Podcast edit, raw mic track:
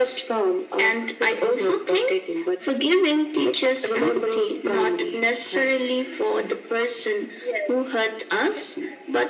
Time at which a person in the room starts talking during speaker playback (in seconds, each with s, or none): none